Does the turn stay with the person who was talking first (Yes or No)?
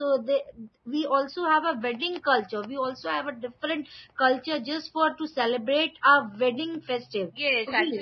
No